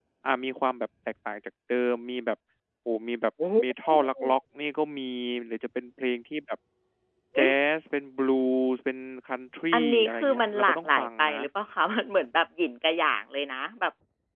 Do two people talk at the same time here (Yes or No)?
Yes